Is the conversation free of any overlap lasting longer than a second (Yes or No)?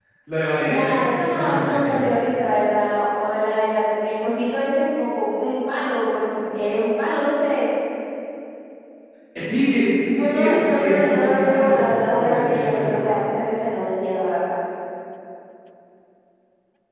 No